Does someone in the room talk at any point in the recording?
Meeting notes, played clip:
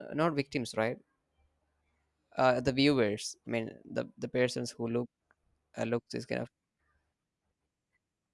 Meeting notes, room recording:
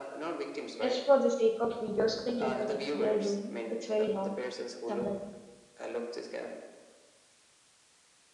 Yes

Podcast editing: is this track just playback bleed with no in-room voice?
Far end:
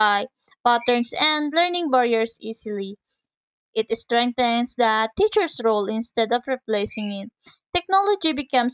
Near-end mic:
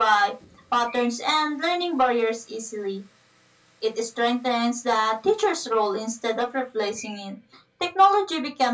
Yes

